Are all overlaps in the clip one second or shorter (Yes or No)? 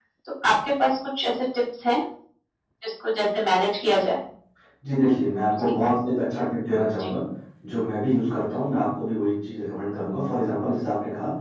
Yes